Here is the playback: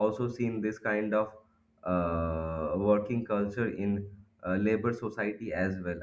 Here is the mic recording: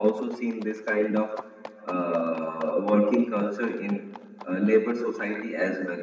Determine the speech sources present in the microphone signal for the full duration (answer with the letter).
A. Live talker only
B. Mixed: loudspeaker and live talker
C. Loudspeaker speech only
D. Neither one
C